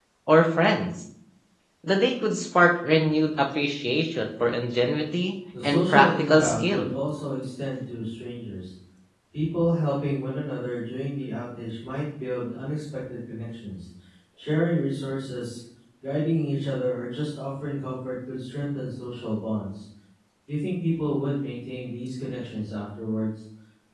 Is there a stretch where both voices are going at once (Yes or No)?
Yes